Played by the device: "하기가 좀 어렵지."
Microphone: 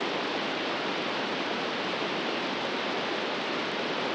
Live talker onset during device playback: none

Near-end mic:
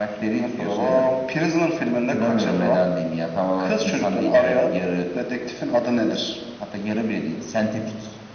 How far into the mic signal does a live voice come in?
none

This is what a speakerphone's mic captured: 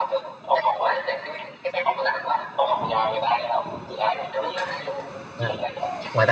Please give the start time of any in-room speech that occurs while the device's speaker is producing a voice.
5.4 s

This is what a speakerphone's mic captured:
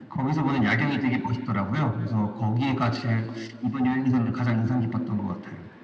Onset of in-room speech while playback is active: none

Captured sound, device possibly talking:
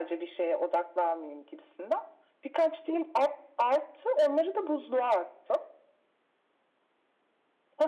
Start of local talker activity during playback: none

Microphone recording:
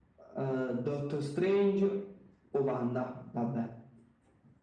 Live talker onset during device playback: none

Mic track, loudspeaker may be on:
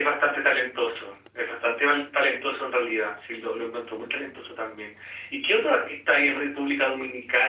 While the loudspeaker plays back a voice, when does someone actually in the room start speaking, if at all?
none

